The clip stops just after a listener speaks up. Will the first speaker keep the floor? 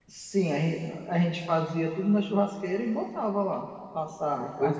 No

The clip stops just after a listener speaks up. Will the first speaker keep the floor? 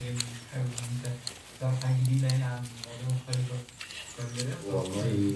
No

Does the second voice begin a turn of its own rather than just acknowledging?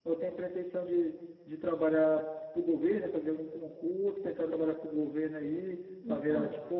No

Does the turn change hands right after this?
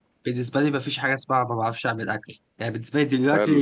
No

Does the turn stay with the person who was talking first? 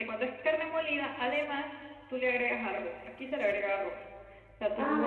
Yes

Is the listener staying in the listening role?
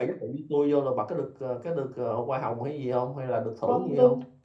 No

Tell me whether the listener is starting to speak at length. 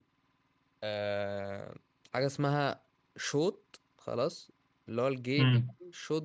No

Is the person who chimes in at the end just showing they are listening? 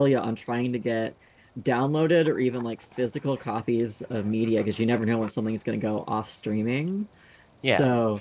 Yes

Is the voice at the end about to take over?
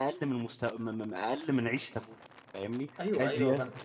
Yes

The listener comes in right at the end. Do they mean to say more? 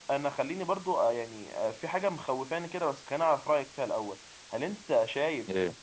No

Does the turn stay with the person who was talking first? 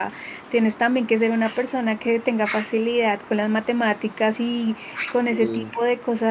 Yes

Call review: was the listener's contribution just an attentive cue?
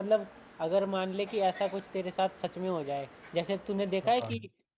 Yes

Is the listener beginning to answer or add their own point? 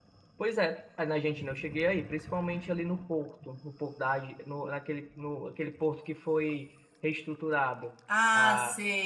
Yes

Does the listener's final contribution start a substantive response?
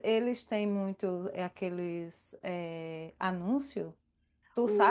Yes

